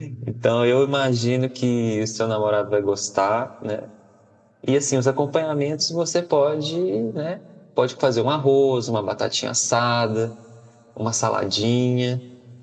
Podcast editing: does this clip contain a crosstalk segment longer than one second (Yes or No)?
No